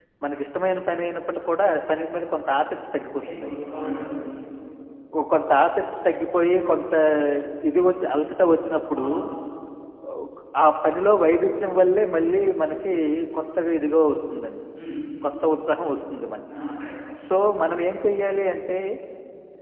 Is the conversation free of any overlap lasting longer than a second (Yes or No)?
Yes